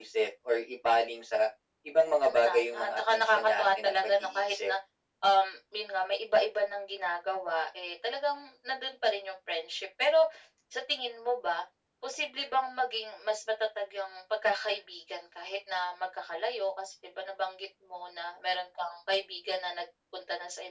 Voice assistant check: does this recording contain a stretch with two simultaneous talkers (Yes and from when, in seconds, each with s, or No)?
Yes, from 2.0 s